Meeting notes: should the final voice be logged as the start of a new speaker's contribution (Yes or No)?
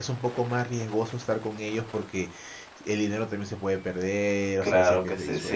Yes